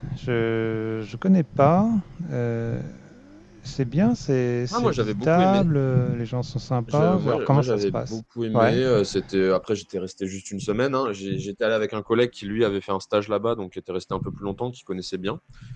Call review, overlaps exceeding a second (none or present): present